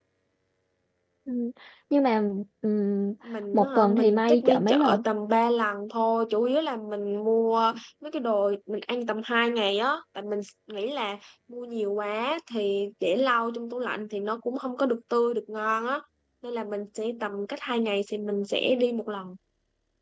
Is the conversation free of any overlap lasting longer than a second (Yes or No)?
No